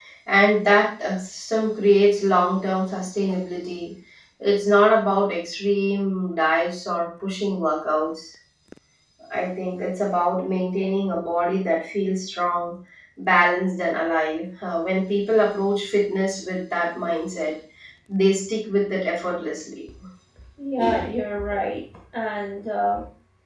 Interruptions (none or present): none